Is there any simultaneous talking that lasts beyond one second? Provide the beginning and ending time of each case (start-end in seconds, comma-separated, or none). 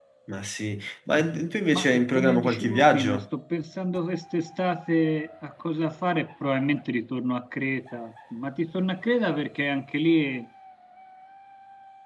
1.7-3.2